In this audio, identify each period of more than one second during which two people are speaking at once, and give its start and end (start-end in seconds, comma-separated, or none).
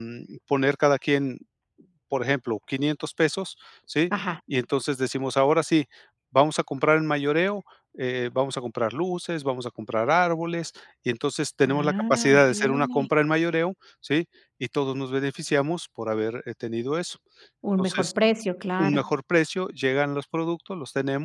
11.7-13.1